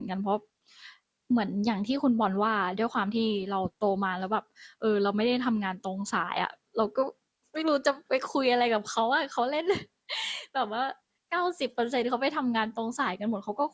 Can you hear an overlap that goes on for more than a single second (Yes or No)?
No